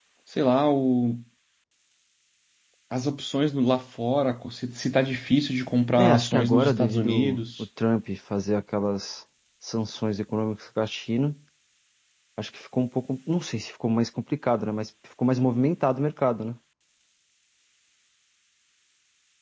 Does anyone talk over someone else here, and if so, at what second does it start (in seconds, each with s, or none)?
6.0 s